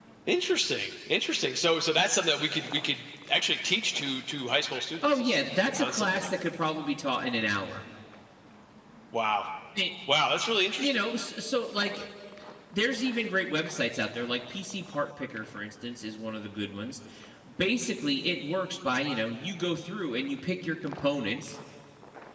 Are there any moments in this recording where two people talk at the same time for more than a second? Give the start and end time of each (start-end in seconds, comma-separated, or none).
5.0-6.3